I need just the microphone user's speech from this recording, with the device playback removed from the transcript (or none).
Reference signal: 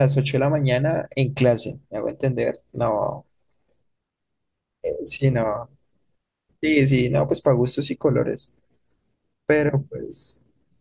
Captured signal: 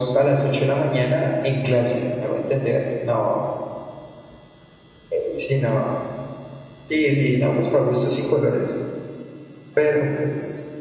none